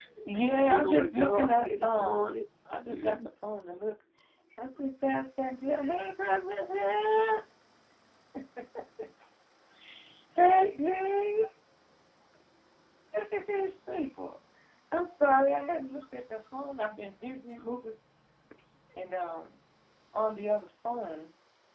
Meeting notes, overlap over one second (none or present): present